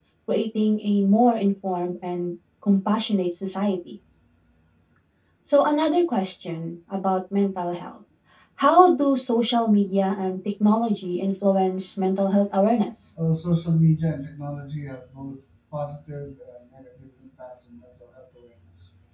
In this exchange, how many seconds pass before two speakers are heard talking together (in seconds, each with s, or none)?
none